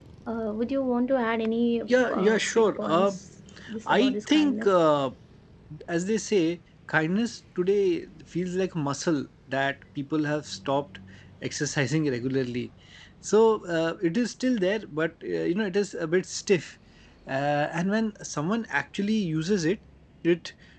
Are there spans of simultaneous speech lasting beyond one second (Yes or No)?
Yes